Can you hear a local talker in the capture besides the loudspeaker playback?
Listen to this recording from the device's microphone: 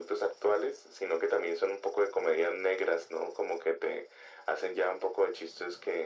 No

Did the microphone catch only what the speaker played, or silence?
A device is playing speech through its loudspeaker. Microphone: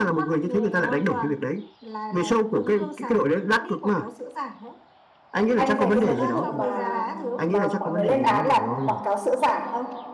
No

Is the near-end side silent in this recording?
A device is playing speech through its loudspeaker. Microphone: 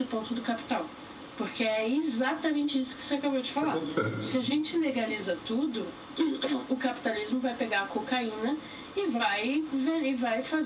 No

